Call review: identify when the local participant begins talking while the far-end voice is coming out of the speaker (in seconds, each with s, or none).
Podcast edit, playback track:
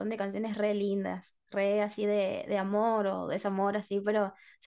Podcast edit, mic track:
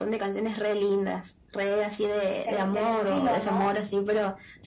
2.4 s